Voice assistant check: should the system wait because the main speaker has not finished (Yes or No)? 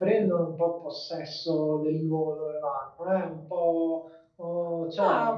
Yes